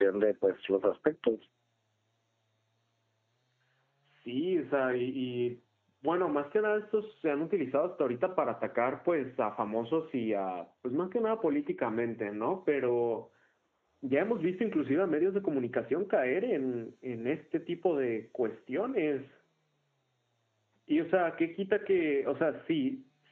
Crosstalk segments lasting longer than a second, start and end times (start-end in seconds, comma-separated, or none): none